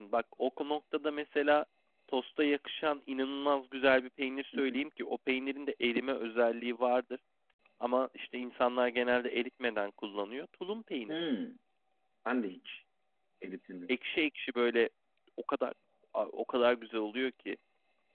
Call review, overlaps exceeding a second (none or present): none